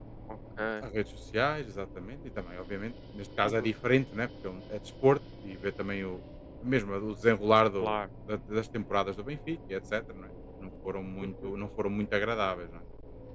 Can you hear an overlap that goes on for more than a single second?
No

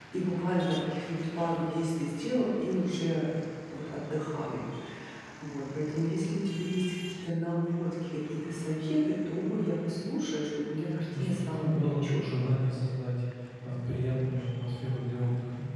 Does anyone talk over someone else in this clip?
Yes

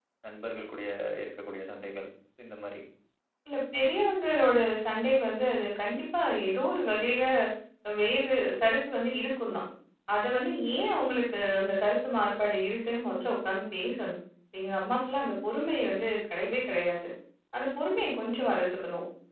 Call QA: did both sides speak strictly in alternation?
Yes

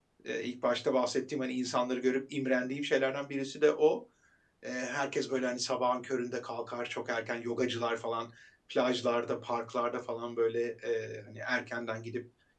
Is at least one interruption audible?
No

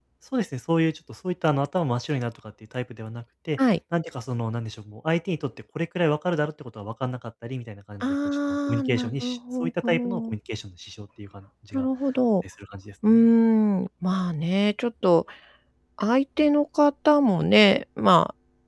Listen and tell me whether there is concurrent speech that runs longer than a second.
Yes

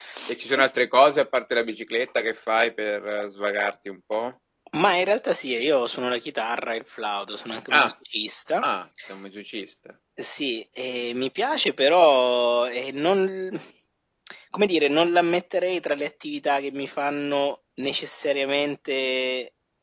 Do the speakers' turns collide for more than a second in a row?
No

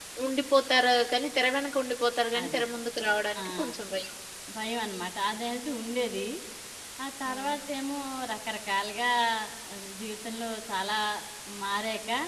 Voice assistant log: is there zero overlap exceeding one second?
Yes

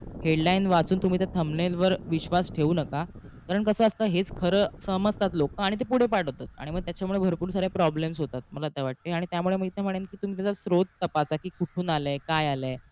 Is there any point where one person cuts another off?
No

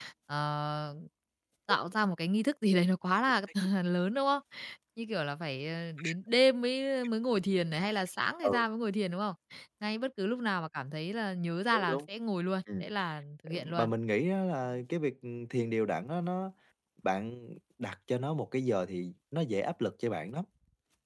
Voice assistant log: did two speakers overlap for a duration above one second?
No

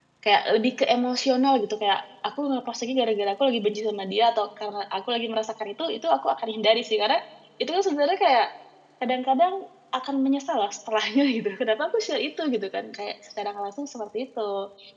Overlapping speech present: No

